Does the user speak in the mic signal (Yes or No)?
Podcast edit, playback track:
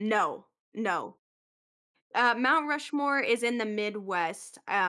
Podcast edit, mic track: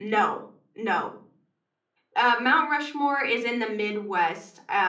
No